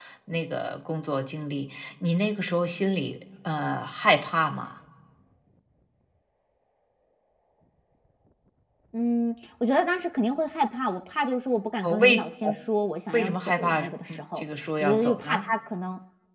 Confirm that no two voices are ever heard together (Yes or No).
No